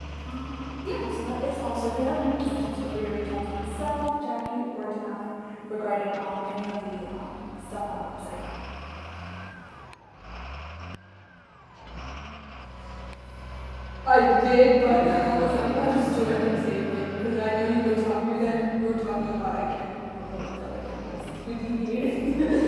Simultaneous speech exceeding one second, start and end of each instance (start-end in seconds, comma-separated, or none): 14.8-16.5